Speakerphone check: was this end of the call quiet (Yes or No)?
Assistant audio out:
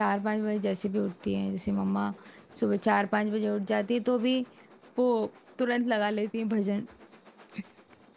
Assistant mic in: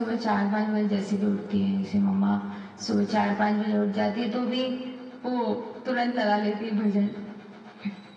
Yes